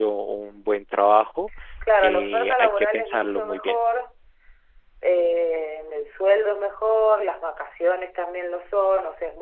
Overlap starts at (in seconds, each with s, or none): 2.0 s